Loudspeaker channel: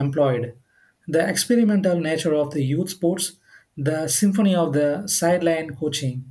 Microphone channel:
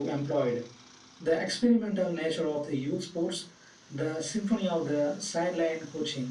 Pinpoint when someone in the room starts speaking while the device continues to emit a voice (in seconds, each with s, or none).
none